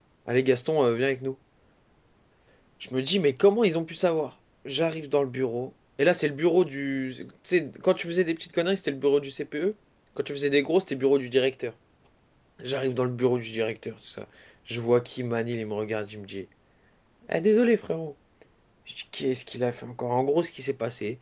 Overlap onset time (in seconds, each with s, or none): none